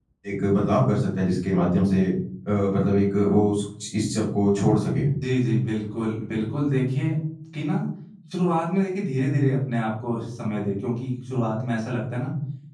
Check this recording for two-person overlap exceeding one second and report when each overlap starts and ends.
none

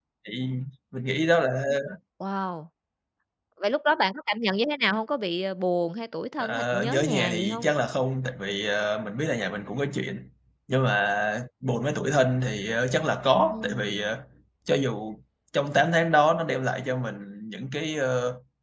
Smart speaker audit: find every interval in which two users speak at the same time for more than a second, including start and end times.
6.4-7.7

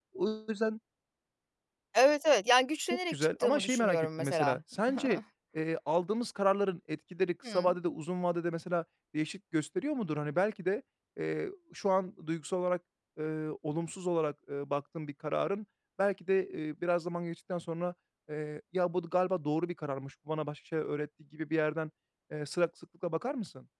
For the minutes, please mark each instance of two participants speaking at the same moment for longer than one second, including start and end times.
3.1-4.6

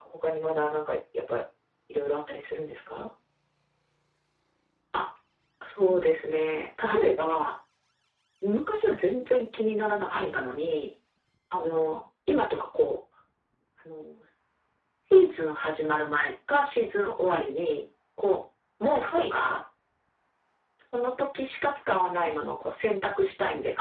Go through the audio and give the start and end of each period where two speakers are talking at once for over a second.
none

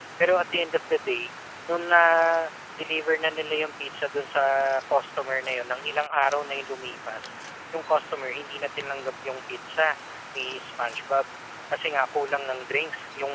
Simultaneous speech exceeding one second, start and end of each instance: none

